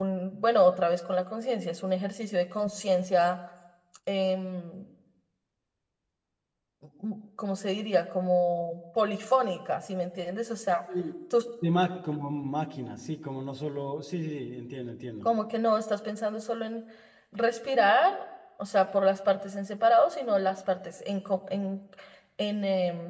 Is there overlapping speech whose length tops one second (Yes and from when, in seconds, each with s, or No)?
No